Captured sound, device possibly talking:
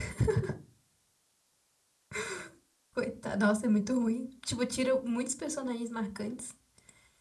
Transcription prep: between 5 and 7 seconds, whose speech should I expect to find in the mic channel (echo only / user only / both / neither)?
user only